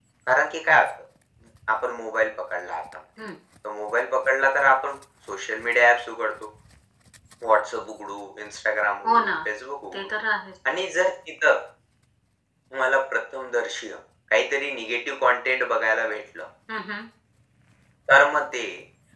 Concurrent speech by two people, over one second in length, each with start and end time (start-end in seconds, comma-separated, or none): none